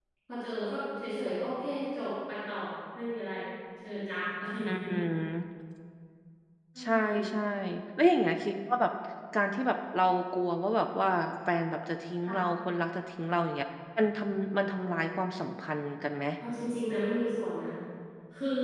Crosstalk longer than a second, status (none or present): none